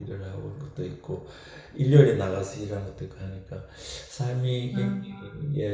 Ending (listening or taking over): listening